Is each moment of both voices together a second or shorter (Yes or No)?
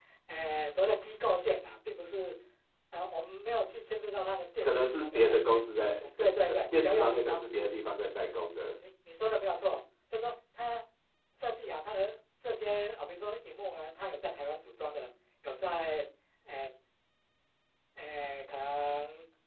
No